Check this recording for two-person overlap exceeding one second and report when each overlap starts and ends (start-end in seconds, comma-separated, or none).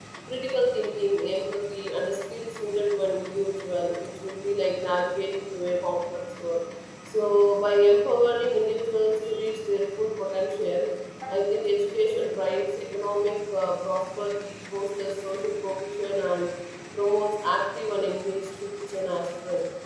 none